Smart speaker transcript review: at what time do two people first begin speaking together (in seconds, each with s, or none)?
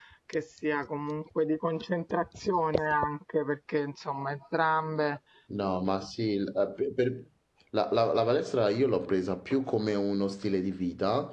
none